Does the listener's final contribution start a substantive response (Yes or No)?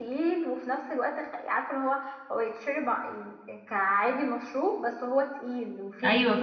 Yes